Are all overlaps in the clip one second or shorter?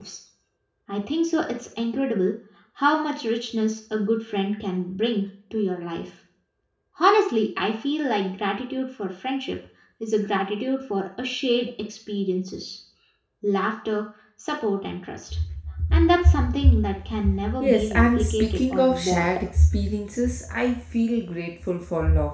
No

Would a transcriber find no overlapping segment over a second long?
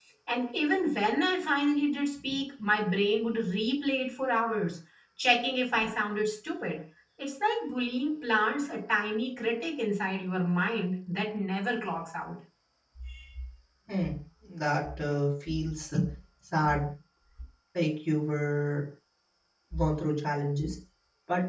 Yes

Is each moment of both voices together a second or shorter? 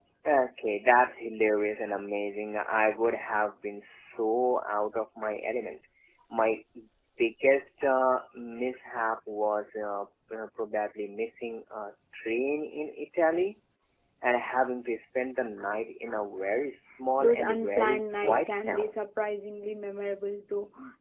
No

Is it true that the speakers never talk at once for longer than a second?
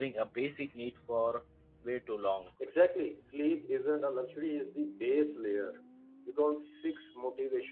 Yes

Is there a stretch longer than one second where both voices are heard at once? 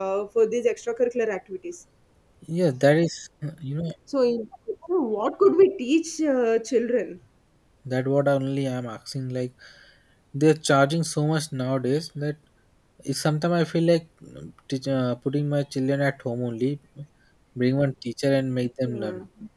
No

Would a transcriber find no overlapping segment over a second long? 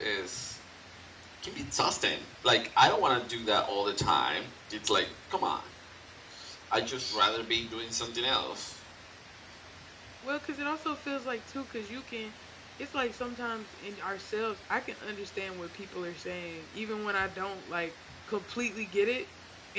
Yes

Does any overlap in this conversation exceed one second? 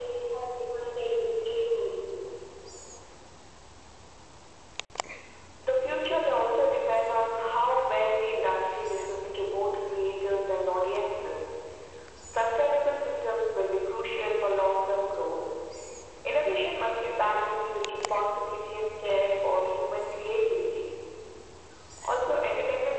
No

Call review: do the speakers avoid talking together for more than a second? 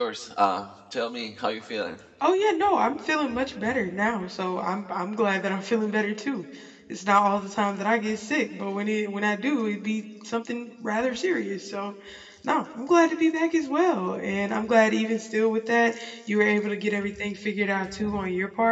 Yes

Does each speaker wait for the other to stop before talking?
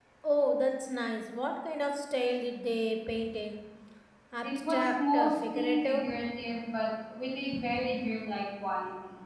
No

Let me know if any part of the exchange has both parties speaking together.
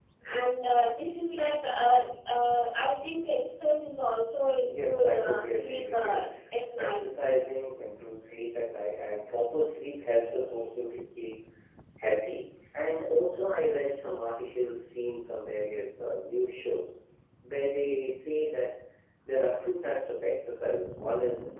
Yes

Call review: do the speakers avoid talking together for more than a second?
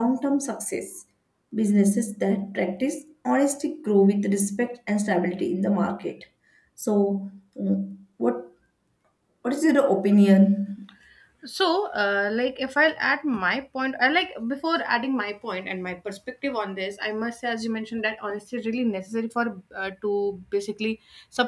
Yes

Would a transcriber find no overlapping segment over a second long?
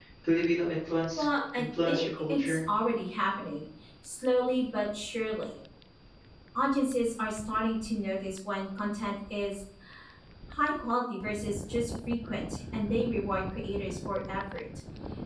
No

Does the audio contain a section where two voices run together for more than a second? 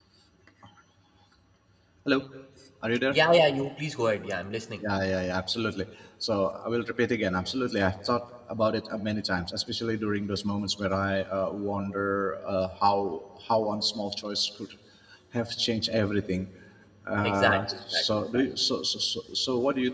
Yes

